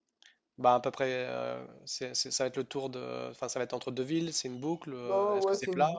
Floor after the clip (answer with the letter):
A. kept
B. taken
B